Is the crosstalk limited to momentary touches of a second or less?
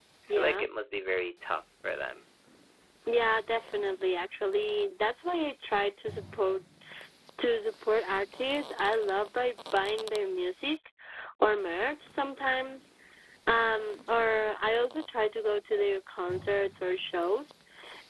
Yes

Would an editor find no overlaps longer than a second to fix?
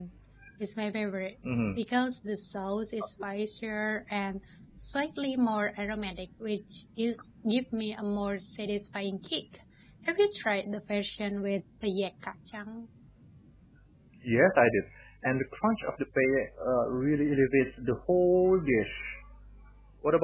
Yes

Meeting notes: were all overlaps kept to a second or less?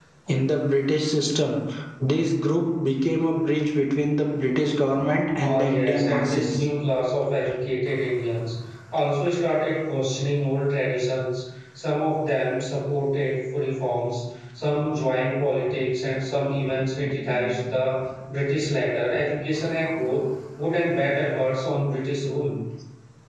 No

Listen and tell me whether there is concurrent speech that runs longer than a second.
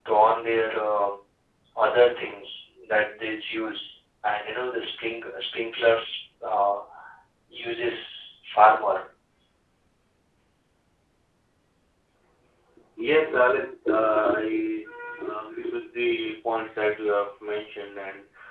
No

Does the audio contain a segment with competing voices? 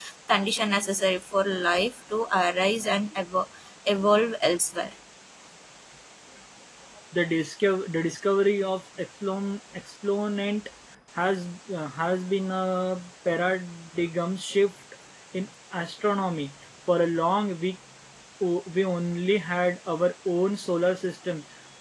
No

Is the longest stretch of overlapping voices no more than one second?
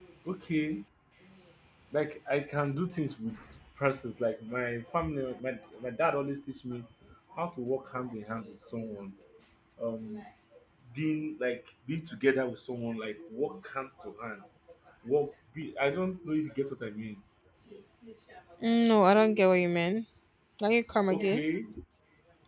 Yes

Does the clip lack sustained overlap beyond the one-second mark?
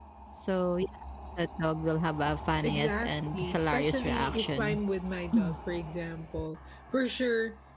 No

